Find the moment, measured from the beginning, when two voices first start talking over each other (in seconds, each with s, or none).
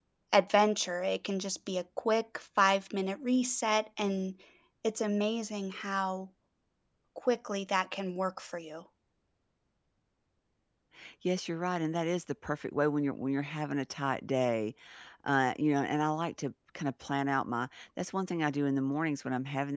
none